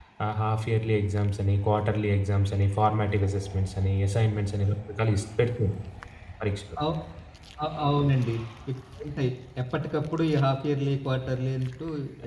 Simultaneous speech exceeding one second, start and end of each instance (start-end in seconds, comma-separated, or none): none